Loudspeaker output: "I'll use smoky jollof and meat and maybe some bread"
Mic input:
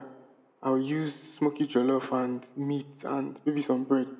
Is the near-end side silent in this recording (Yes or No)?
Yes